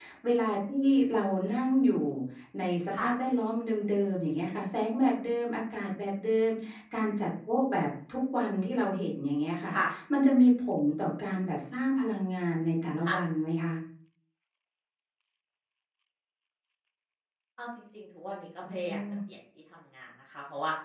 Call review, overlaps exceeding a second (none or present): none